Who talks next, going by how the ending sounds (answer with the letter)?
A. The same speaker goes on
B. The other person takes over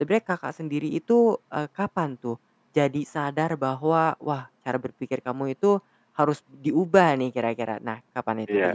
B